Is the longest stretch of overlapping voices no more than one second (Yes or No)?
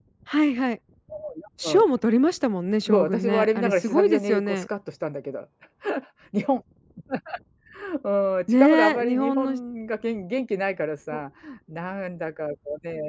No